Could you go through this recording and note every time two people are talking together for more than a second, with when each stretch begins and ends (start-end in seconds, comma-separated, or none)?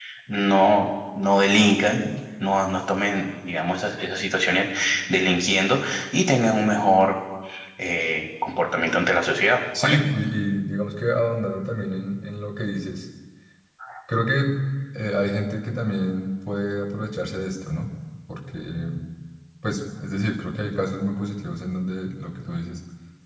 none